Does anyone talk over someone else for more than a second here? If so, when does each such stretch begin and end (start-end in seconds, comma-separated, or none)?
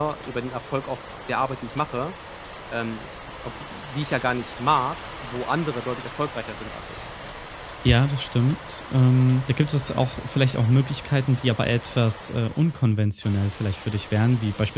none